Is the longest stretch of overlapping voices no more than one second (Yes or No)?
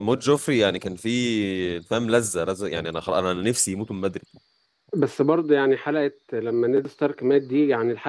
Yes